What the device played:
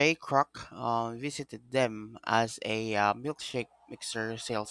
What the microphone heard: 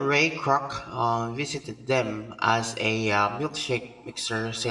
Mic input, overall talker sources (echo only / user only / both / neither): echo only